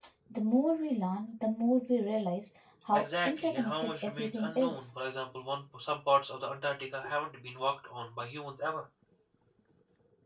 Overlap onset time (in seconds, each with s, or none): 2.9 s